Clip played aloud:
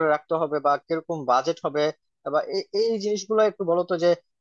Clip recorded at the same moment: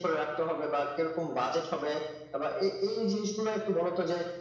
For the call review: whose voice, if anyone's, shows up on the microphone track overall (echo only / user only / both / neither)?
echo only